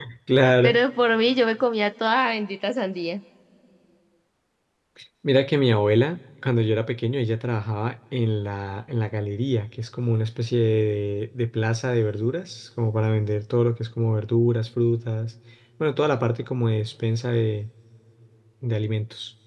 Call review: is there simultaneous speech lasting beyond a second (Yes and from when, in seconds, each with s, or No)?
No